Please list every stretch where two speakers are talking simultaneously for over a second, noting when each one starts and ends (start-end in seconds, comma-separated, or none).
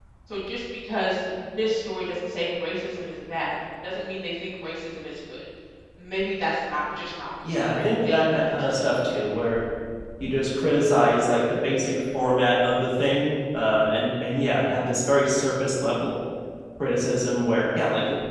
7.4-8.9